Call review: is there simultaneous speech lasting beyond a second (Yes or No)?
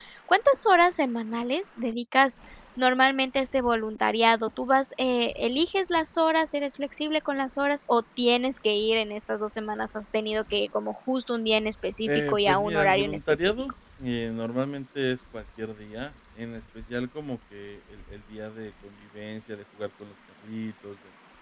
Yes